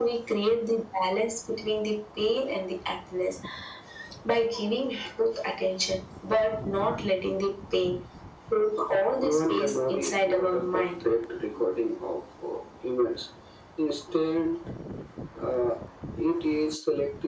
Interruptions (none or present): present